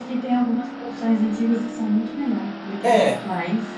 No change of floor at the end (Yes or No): No